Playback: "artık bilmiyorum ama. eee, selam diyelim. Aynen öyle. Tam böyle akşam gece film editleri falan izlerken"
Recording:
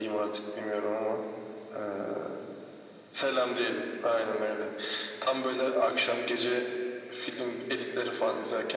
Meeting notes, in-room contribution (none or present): none